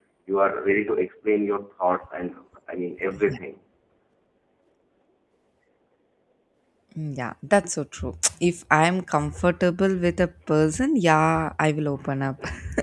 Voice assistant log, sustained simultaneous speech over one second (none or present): none